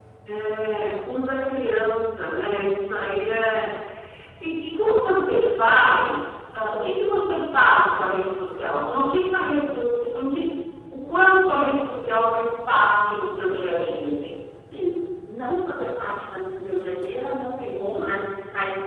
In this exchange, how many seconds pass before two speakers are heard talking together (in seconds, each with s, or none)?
none